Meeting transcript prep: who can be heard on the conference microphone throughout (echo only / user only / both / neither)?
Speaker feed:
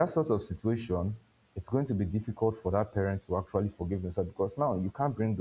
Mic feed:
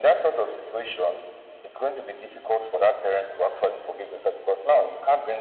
echo only